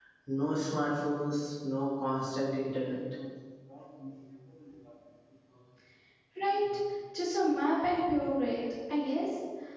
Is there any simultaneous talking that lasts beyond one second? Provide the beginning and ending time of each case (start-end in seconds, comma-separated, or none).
none